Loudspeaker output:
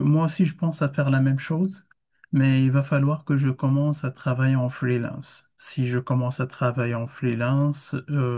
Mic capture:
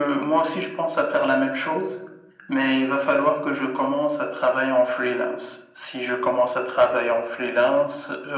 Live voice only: none

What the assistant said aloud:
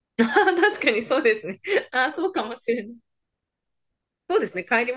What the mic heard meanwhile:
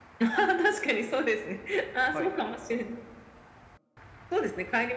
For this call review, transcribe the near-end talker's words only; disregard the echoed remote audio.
はい。

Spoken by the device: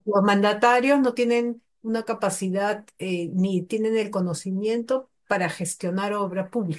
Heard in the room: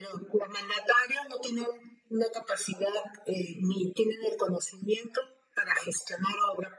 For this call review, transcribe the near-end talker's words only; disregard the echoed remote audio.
none

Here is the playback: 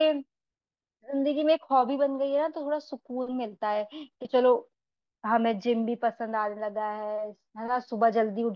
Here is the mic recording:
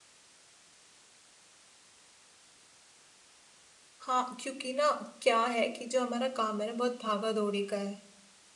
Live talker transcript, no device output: हाँ क्योंकि ना क्या है कि जो हमारा काम है ना बहुत भागा दौड़ी का है

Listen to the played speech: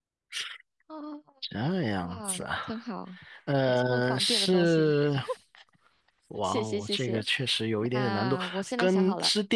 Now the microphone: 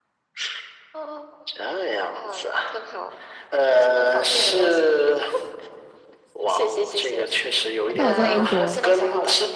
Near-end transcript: 但我在英国，

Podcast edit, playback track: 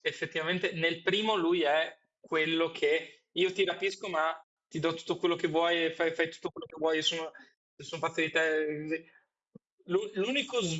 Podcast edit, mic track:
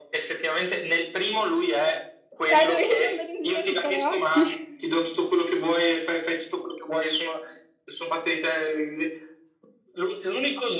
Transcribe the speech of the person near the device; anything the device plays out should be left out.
Eh, dovevi andare in giro a leccare occhi.

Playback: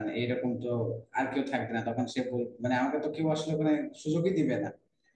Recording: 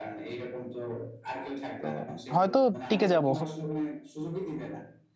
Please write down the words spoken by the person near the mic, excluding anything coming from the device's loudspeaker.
তো হয়তো টিকে যাব

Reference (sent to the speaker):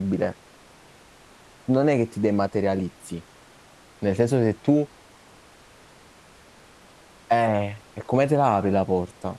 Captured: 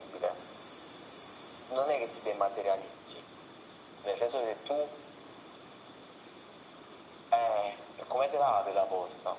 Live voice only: none

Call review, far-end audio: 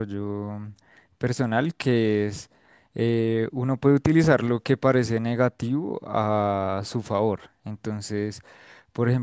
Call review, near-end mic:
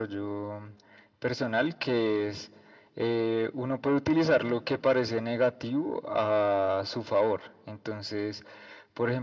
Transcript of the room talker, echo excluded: none

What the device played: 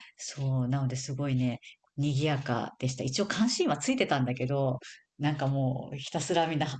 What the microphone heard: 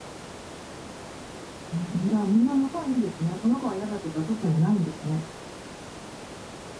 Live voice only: うんじゃあみんな仲いいんですね。この子は嫌だとか特にないんですね。

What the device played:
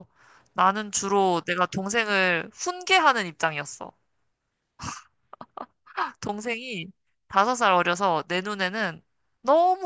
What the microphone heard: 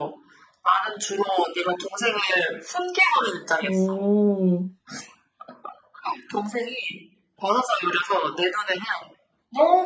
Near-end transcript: 오,

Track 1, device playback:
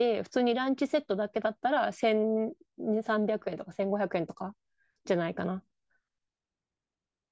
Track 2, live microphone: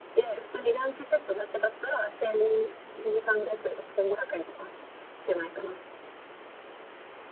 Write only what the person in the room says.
none

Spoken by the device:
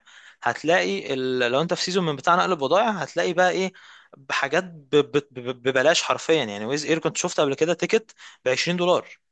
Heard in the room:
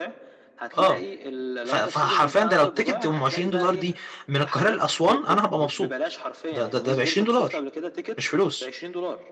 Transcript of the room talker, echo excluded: اه ف... فحرفيا ده لو التيكت ام 20 دولار دي من القاهرة لأسوان انا هبقى مبسوط ده ده ده ب 20 دولار مش فلوس

